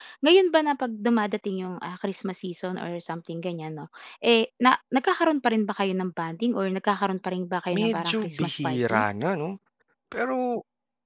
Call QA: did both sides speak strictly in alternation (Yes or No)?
No